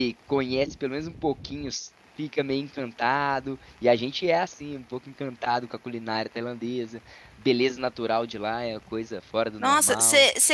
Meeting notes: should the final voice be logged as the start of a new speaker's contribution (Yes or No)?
Yes